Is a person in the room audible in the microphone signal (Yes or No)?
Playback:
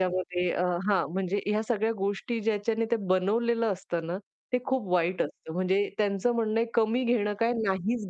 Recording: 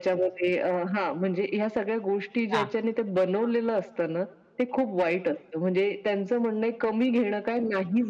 Yes